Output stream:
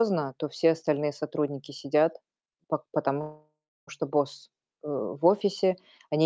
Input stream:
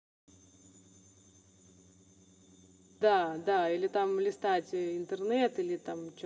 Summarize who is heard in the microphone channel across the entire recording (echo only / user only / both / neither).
user only